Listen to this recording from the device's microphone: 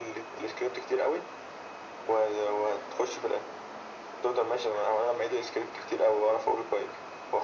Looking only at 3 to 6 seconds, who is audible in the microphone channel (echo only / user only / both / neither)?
echo only